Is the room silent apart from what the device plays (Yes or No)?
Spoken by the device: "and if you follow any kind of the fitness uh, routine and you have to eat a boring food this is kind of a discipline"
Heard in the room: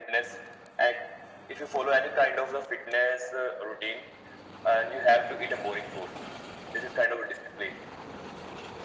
Yes